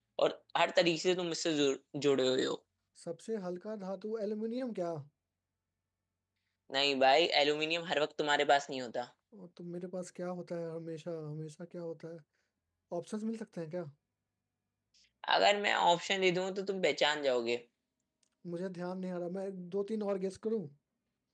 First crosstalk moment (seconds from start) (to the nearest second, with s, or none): none